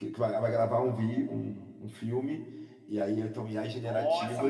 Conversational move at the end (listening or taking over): taking over